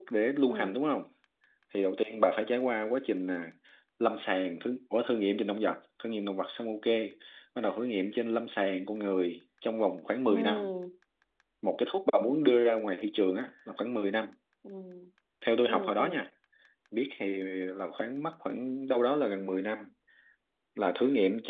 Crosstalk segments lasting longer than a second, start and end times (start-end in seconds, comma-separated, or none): none